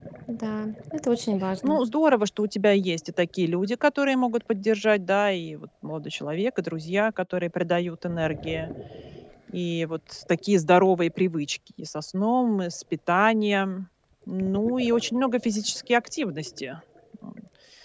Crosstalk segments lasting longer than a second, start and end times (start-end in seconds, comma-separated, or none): none